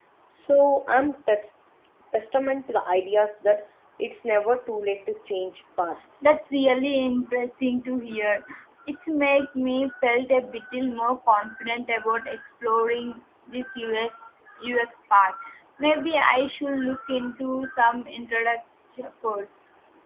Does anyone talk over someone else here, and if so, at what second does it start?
none

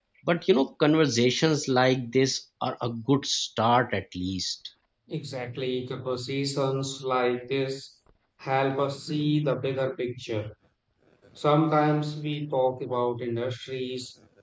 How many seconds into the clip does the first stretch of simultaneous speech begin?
none

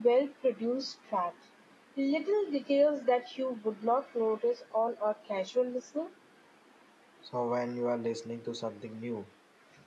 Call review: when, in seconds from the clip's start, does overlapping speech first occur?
none

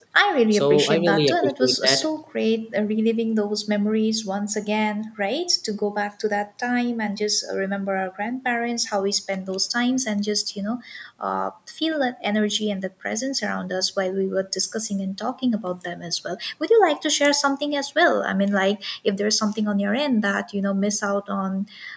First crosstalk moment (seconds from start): 0.5 s

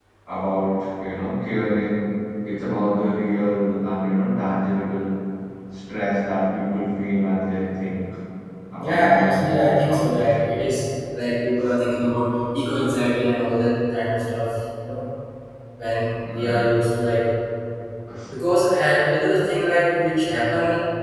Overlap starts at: 8.8 s

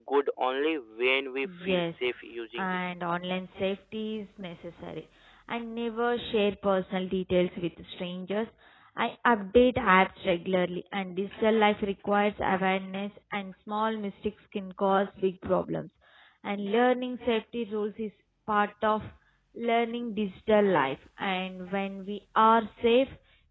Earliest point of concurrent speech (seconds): 1.4 s

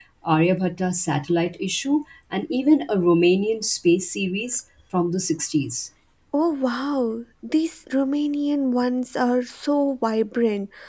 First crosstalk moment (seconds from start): none

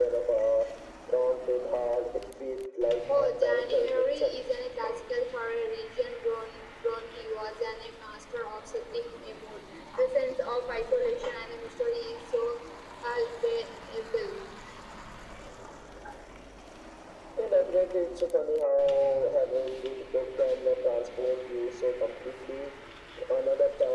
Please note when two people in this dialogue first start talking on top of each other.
3.1 s

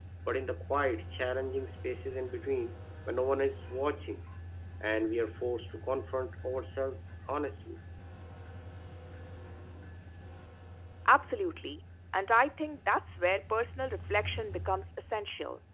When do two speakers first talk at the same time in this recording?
none

